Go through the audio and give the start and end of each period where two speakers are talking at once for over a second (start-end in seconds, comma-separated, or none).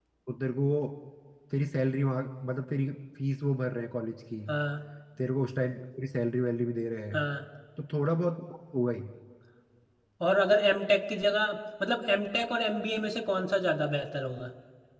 none